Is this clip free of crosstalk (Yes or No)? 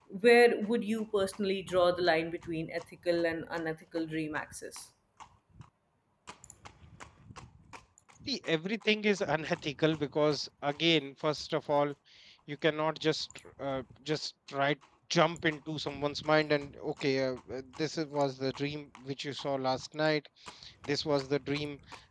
Yes